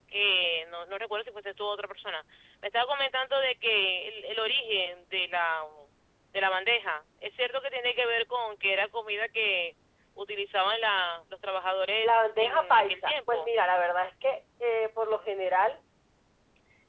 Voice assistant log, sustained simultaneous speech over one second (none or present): present